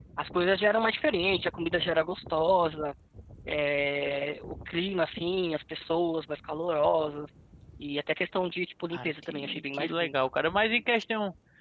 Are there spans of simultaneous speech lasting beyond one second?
Yes, from 8.9 s

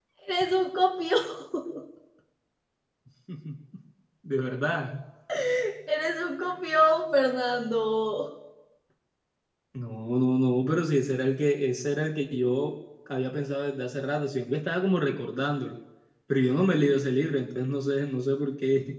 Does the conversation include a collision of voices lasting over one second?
No

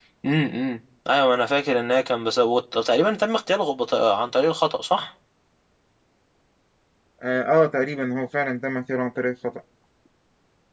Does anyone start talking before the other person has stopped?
No

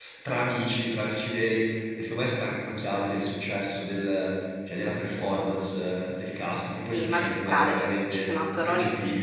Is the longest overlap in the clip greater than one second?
Yes, from 6.9 s

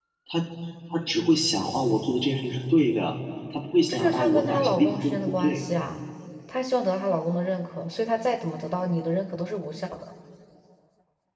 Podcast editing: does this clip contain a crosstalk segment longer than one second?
Yes, from 3.9 s

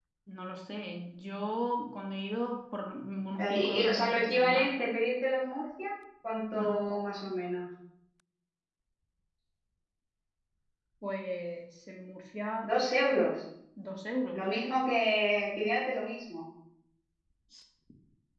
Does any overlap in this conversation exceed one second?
Yes, from 3.4 s

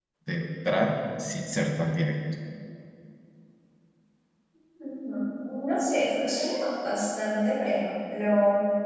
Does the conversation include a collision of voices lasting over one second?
No

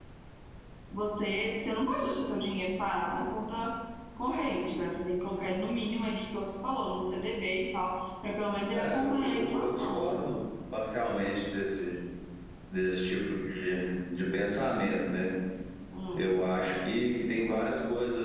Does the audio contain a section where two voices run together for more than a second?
Yes, from 8.7 s

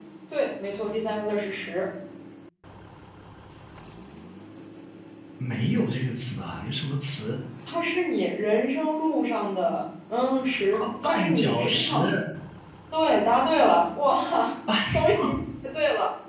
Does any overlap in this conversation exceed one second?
Yes, from 10.7 s

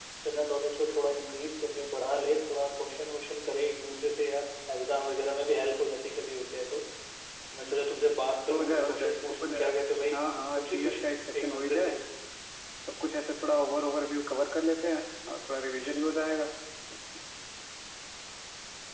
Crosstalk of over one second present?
Yes, from 8.5 s

